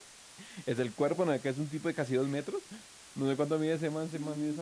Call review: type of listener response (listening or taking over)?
taking over